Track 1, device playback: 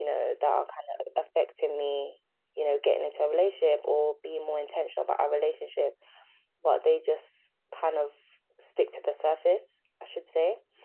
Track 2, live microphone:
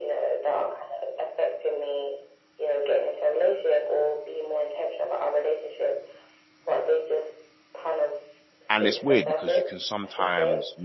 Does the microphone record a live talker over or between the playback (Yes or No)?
Yes